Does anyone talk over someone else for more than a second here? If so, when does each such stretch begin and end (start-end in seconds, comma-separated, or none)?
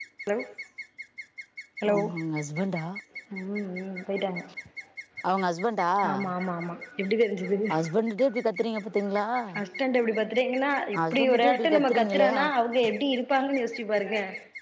11.0-12.5